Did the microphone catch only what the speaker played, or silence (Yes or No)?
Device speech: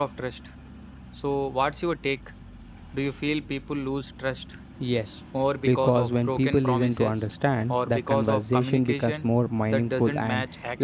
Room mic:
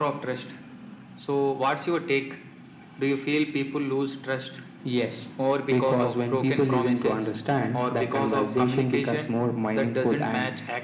Yes